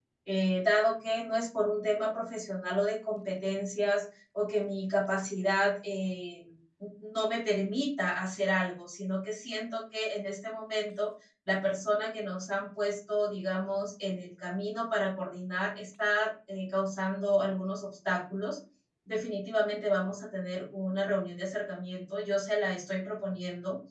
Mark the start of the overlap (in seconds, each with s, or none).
none